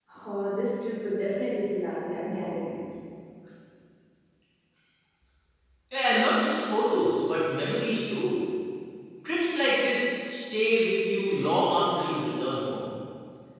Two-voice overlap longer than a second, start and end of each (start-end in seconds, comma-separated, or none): none